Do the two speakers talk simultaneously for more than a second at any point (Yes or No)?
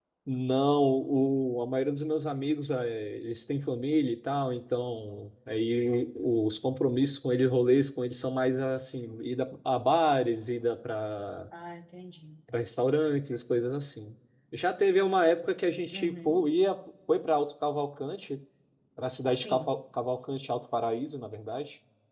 No